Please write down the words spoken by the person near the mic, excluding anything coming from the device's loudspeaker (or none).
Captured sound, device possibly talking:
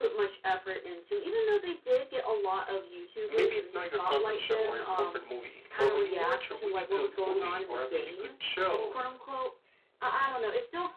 maybe it's not your comfort show or your comfort movie, but when you watch a really good movie or a really good show,